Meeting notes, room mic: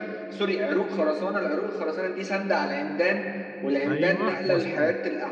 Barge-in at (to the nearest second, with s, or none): 4 s